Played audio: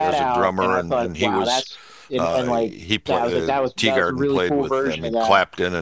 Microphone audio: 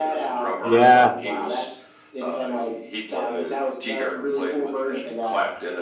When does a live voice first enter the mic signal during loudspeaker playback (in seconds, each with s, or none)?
0.6 s